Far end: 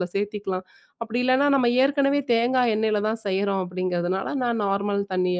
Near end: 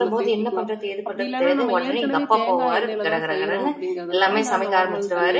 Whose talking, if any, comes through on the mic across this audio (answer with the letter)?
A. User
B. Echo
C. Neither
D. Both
D